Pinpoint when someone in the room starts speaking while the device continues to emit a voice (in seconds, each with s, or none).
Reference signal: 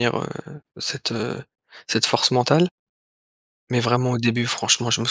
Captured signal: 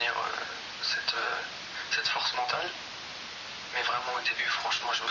none